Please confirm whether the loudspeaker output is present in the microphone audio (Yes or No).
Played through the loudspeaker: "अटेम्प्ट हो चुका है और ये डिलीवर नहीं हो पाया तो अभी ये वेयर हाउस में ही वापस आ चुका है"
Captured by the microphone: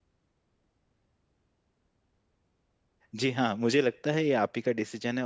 No